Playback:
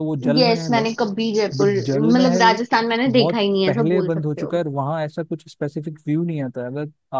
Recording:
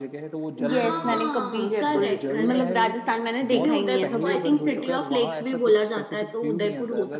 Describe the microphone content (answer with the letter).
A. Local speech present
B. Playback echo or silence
A